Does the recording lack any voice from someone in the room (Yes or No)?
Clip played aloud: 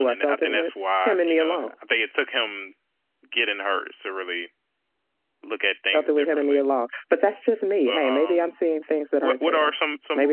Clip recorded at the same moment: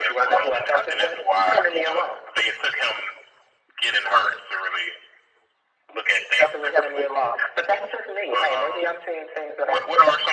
Yes